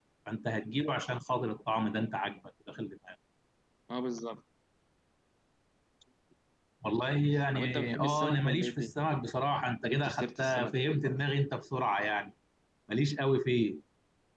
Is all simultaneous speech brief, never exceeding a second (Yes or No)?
No